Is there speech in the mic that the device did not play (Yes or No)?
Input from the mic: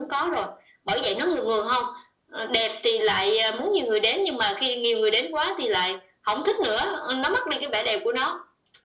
No